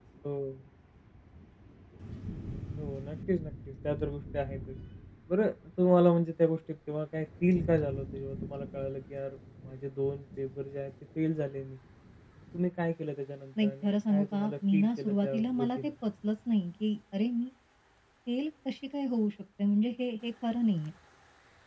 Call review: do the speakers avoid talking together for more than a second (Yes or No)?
No